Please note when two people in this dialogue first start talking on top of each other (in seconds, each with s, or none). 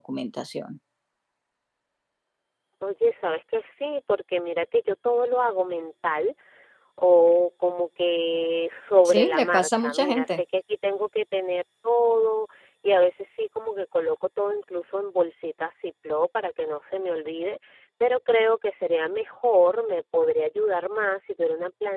9.0 s